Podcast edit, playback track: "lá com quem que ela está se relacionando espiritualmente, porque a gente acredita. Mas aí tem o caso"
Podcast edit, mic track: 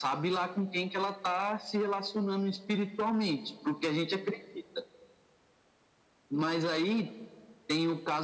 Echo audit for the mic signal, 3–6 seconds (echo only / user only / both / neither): echo only